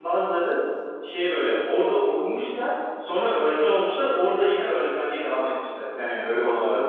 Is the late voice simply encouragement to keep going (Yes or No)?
No